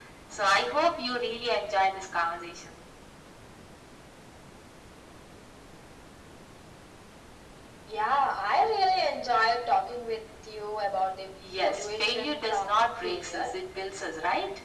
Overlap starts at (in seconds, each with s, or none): 11.4 s